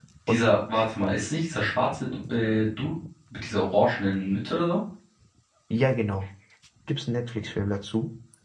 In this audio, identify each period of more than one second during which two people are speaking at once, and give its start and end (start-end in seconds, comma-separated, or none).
none